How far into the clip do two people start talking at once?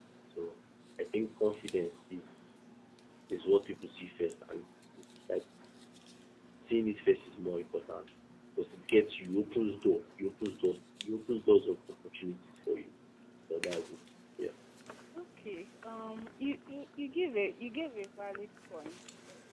none

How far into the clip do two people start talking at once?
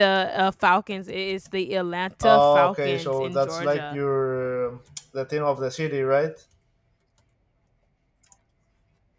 2.2 s

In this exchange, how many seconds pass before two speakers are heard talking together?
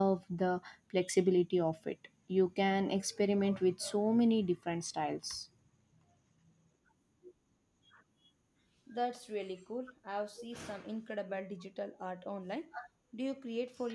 none

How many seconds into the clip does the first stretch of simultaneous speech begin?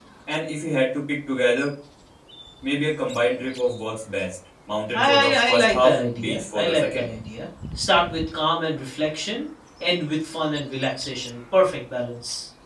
4.9 s

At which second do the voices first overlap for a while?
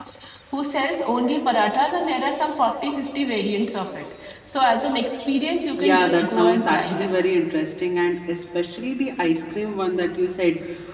5.7 s

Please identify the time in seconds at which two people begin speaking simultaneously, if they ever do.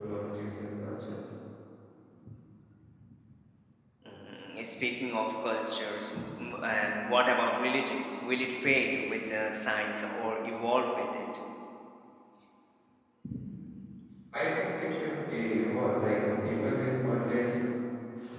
none

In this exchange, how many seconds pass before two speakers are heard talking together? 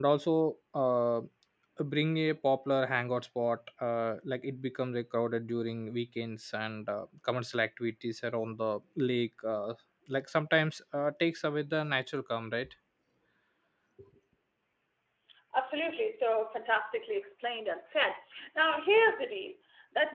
none

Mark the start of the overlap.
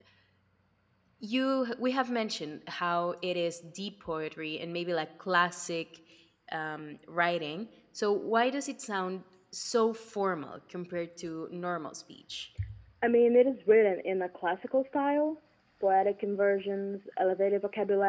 none

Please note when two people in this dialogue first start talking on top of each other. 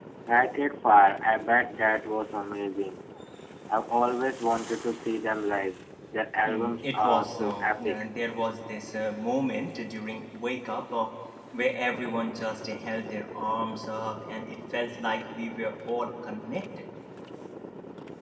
6.4 s

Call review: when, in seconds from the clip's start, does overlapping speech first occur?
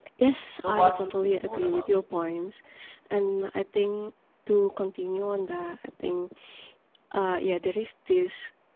0.6 s

